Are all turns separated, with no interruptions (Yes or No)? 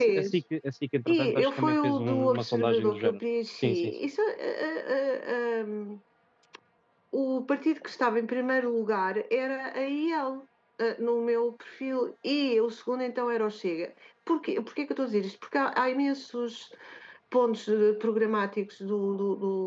No